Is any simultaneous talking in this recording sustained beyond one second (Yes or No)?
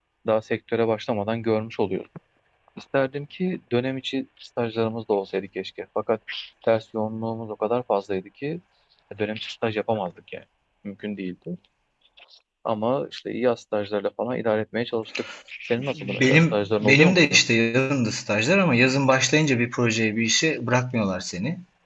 Yes